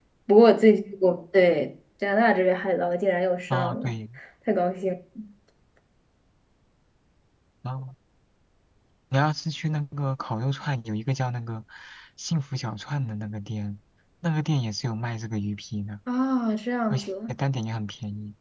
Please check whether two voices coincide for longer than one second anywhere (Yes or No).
No